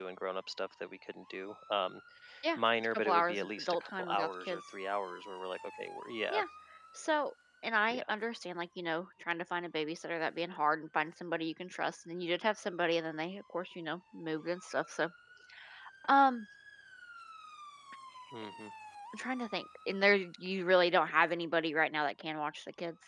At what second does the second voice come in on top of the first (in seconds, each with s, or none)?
2.6 s